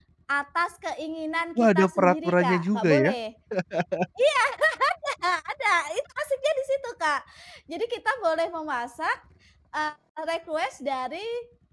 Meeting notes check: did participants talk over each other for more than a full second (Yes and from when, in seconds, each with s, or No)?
Yes, from 1.6 s